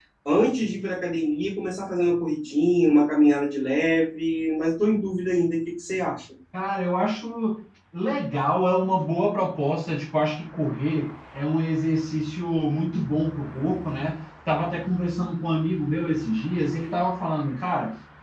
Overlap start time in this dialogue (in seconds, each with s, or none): none